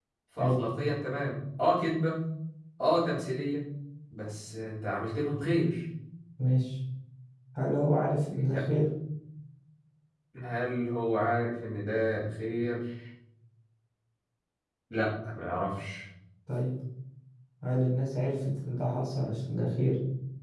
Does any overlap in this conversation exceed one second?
No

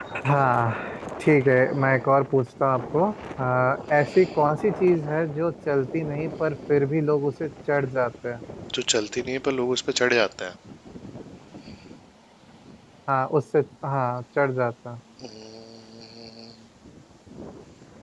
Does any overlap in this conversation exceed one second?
No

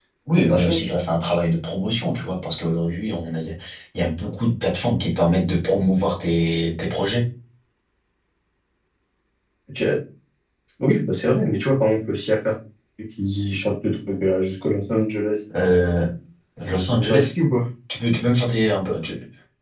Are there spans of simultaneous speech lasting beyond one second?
No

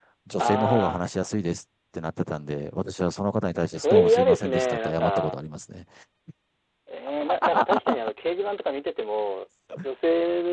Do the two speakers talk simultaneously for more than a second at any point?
Yes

